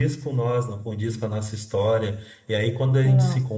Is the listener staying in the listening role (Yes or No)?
Yes